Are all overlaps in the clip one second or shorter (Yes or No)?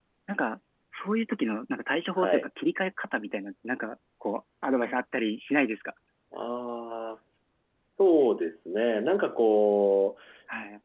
Yes